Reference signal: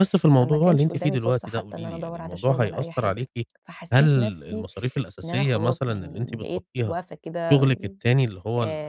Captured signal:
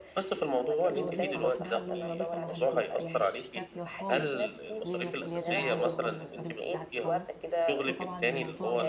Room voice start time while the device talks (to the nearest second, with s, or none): 1 s